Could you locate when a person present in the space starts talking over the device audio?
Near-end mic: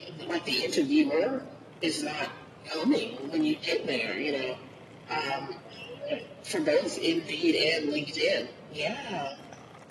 none

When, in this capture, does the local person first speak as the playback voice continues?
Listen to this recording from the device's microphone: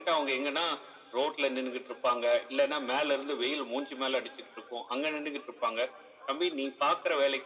none

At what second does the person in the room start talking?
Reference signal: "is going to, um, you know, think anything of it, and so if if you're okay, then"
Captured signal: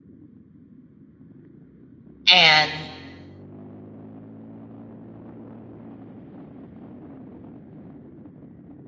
2.3 s

